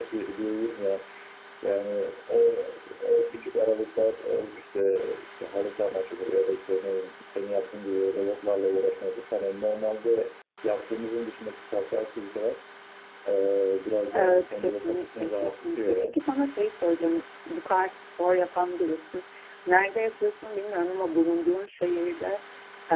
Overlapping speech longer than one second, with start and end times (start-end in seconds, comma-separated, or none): 14.1-16.2